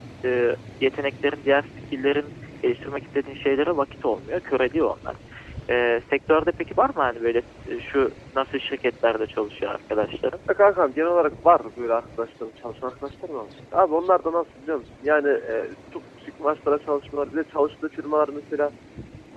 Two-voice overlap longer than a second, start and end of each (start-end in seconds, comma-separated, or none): none